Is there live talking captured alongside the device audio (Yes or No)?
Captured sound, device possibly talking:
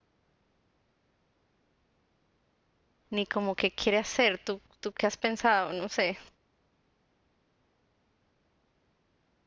Yes